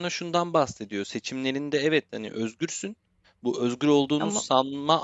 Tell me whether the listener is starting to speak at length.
No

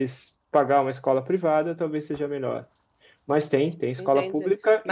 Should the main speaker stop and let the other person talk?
Yes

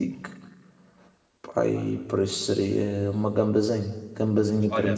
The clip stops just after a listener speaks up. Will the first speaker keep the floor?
No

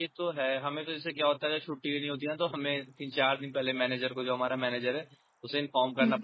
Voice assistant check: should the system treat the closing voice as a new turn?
No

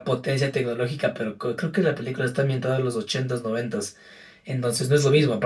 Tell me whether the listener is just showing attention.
Yes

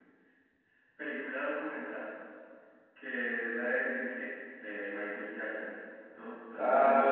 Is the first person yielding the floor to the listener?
Yes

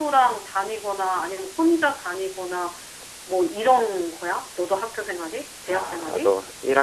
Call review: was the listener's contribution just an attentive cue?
No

